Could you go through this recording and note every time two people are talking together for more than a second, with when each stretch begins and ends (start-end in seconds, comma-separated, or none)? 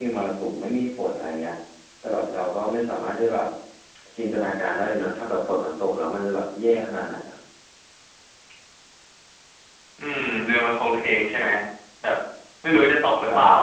none